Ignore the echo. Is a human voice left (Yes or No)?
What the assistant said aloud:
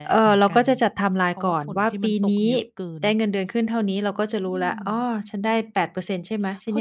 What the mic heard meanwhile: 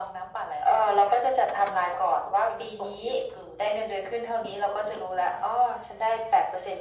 No